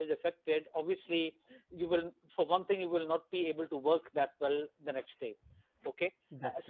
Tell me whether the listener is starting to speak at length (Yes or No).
No